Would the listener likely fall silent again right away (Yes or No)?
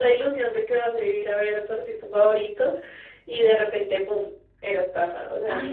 No